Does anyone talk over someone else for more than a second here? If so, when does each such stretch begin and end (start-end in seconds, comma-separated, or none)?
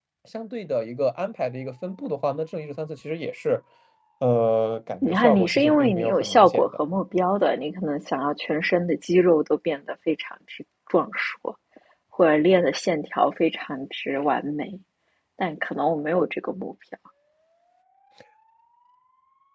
5.0-6.7